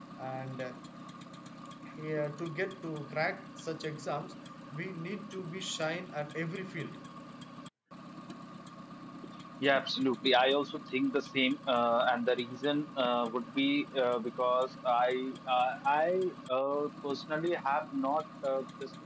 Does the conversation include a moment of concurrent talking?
No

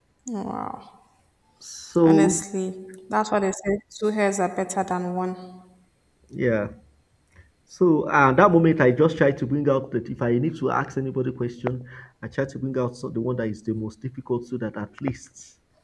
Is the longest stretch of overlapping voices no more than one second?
Yes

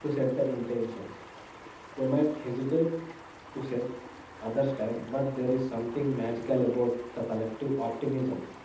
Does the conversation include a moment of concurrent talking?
No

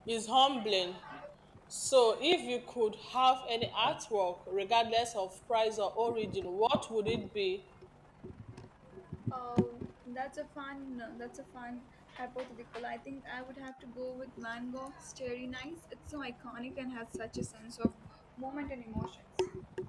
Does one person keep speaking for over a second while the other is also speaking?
No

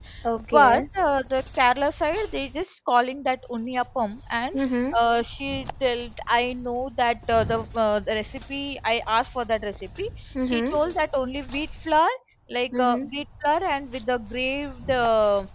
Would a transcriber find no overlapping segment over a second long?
Yes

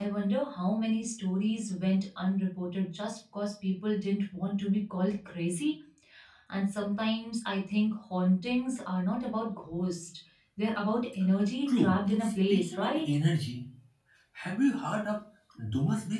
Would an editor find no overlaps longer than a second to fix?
No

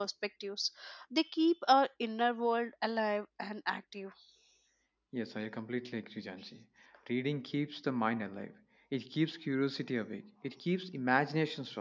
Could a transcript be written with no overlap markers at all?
Yes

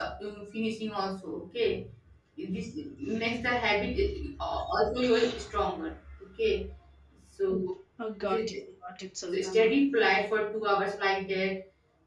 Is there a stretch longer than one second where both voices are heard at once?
No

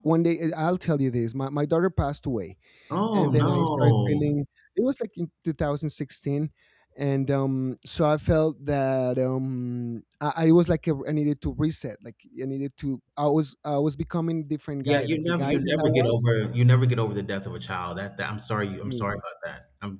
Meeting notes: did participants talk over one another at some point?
Yes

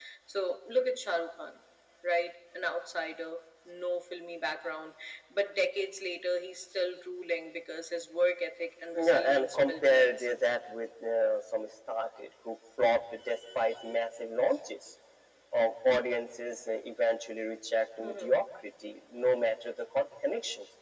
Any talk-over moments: Yes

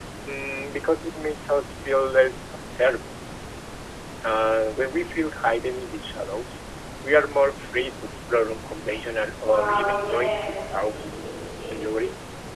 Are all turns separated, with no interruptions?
No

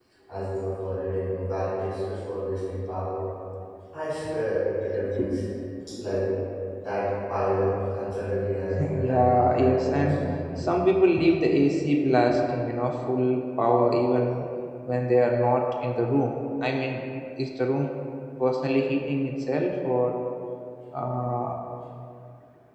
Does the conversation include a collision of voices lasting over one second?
Yes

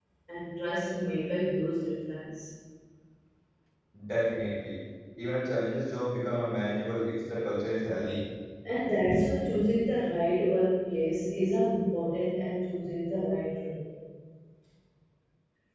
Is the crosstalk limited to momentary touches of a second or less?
Yes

